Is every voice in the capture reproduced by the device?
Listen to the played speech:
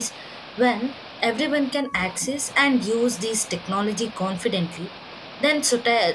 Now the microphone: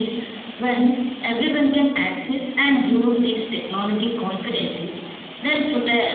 Yes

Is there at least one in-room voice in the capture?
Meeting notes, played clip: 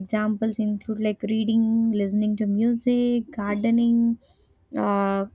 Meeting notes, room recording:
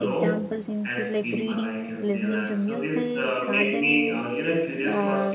Yes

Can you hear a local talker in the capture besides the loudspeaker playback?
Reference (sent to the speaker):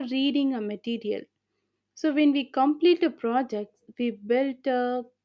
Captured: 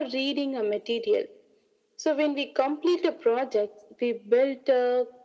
No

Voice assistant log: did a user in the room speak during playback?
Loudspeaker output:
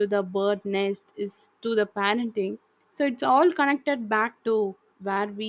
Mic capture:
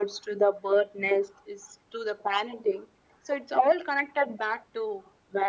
No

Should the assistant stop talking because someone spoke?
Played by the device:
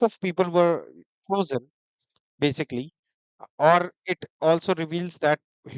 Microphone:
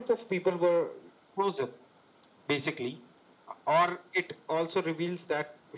No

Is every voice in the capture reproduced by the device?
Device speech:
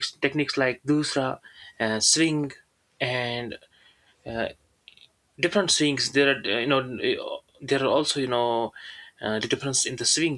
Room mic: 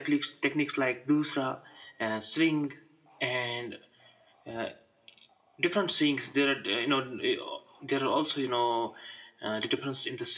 Yes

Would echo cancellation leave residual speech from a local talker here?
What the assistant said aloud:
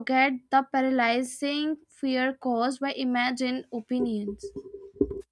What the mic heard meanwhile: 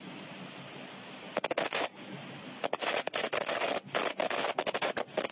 No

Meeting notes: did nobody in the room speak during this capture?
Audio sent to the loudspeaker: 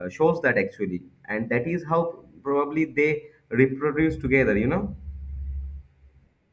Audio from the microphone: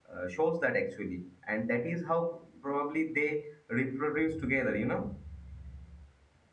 Yes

